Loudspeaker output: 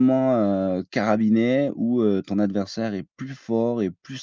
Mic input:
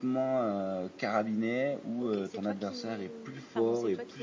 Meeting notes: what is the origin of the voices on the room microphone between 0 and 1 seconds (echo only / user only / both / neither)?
echo only